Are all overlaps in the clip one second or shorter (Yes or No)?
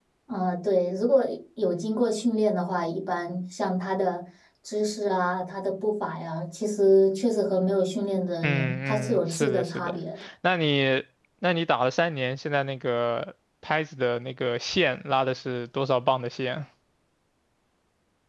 No